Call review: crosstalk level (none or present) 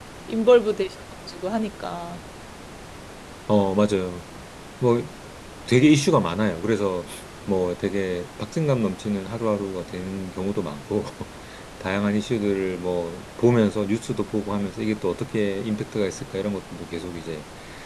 none